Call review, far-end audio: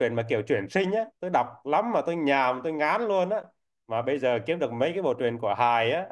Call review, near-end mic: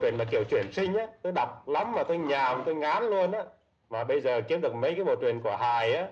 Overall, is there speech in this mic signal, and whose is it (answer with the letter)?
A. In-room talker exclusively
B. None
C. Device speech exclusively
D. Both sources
C